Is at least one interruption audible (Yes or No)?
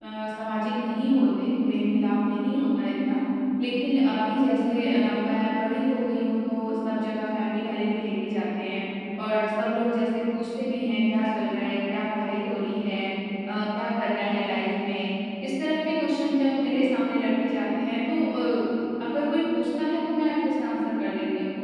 No